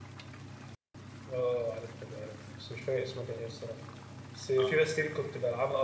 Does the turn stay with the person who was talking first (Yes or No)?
Yes